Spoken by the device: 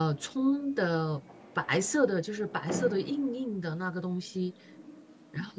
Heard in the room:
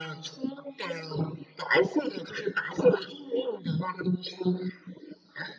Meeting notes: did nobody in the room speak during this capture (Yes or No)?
Yes